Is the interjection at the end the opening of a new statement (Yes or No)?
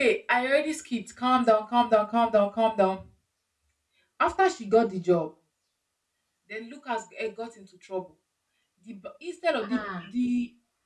No